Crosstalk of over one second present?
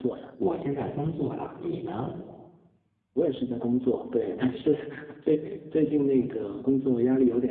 No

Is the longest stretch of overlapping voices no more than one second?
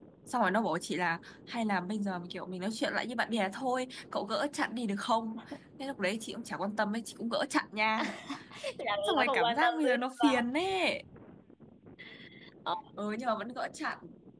No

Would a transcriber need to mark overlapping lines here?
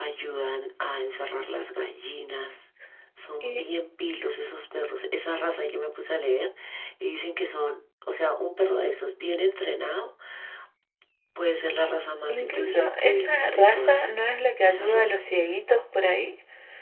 Yes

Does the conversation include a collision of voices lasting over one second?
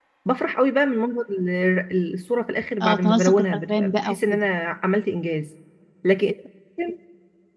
Yes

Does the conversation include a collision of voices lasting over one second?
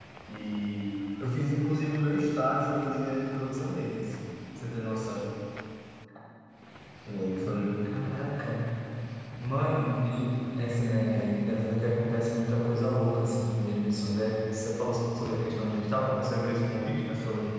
No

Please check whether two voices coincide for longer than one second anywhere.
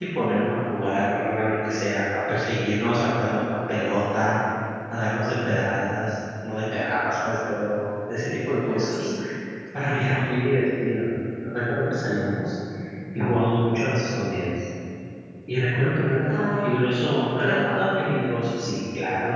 Yes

